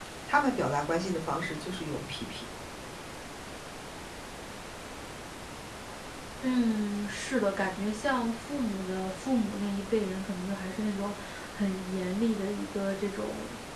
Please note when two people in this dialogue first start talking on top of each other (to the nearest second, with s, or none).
none